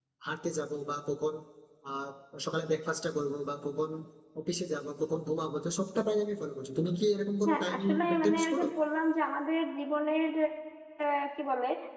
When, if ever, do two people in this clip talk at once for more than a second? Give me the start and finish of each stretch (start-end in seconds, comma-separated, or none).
7.4-8.7